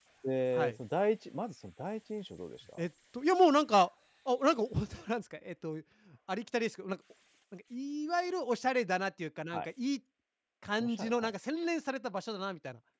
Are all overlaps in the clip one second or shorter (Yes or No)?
Yes